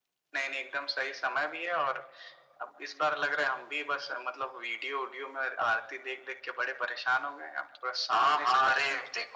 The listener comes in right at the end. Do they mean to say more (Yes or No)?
Yes